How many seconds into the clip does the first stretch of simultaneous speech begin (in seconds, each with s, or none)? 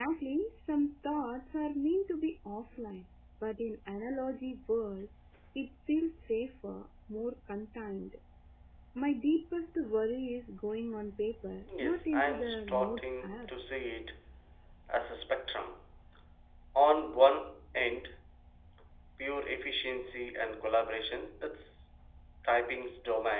11.7 s